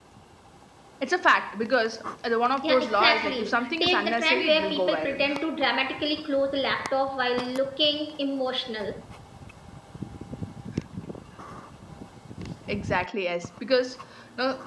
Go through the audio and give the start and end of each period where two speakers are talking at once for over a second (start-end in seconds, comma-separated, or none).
2.6-5.2